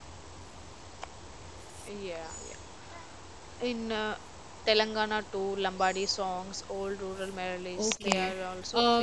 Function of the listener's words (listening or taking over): taking over